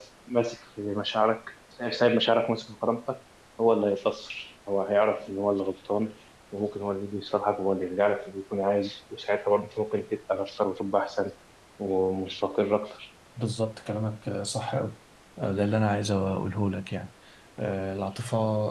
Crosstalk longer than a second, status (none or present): none